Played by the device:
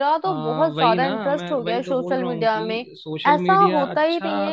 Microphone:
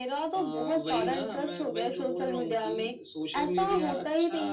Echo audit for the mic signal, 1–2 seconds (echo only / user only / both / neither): echo only